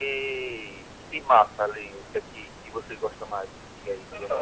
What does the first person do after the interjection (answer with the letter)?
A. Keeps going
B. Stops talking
B